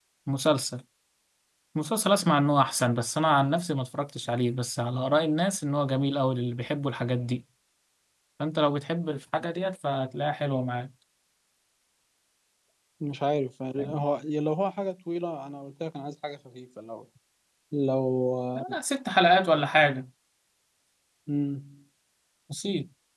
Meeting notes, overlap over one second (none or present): none